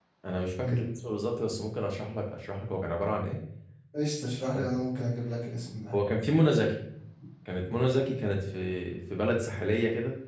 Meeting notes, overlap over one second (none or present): none